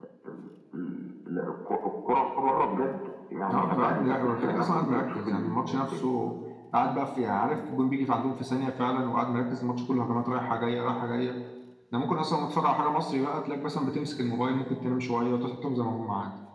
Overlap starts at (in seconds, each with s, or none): 3.5 s